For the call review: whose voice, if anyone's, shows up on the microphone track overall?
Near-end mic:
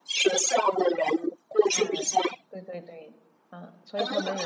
both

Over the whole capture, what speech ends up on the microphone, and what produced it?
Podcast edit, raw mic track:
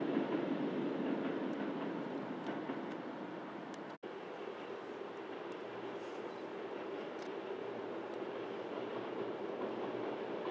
neither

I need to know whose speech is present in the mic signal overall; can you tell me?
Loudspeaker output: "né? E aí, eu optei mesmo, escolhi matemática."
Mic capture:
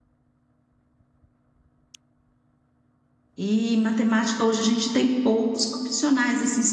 user only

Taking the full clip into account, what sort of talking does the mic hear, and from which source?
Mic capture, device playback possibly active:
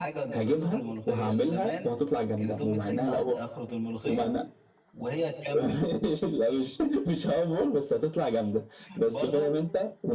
both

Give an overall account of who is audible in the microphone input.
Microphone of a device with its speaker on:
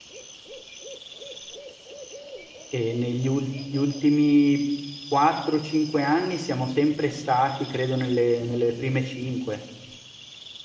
user only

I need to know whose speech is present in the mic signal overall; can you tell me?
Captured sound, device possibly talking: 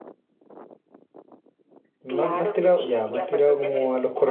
both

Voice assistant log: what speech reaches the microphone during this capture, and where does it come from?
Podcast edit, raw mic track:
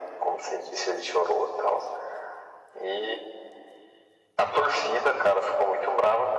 echo only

